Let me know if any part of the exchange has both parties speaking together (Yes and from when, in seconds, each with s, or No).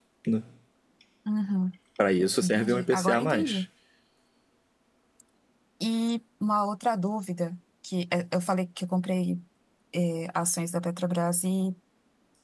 Yes, from 2.4 s